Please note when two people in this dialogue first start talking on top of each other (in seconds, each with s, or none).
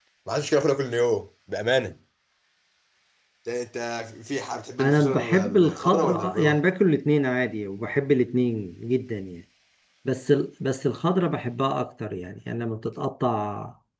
4.8 s